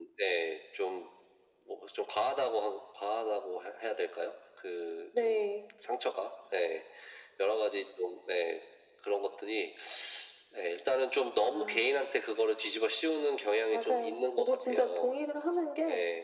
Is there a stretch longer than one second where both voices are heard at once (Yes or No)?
Yes